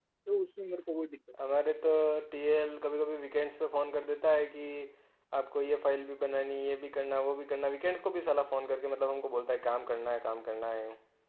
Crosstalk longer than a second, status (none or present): none